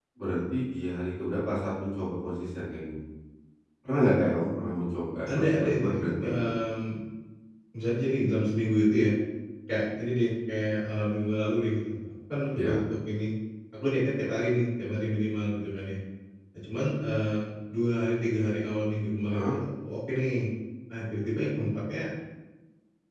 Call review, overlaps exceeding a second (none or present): present